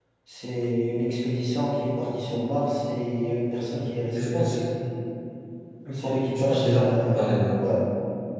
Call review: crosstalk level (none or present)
present